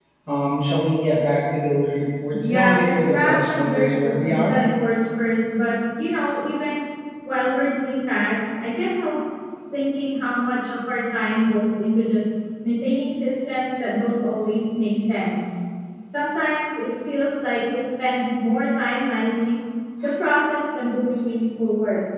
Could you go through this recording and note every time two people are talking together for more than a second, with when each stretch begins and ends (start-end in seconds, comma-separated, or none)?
2.4-4.6